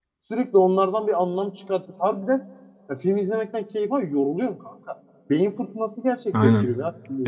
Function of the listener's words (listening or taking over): taking over